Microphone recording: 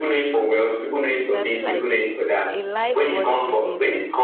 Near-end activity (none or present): present